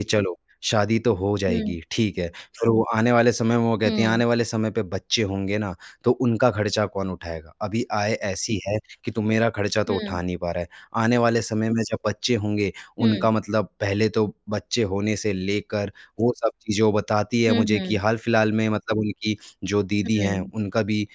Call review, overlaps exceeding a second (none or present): none